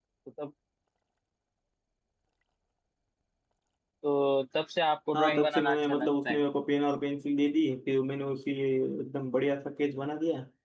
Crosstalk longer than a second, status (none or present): present